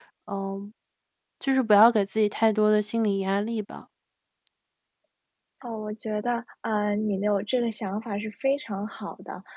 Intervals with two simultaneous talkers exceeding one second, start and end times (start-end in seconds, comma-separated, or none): none